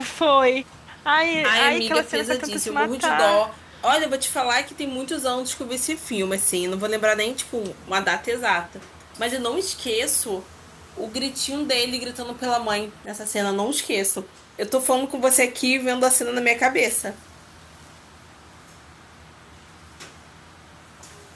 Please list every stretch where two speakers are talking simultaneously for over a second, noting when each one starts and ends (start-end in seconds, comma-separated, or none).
1.4-3.4